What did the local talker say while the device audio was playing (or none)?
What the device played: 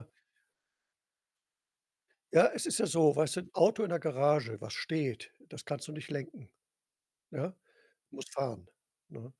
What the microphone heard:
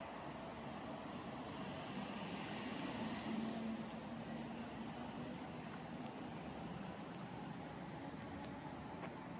none